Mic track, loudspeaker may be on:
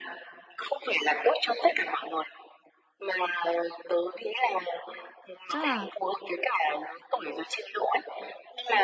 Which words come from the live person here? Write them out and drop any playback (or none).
Chắc là